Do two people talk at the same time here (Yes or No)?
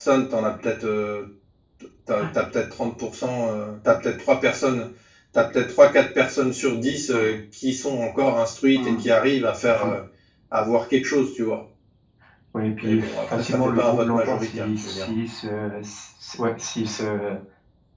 Yes